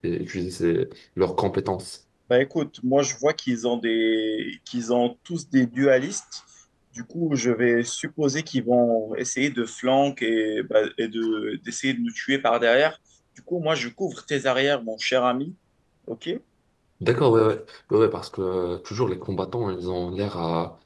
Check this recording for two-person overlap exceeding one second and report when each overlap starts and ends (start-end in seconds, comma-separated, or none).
none